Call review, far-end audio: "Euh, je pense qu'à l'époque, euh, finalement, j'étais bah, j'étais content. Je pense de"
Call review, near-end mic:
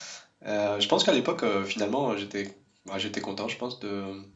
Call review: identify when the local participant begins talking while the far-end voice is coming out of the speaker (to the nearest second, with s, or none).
none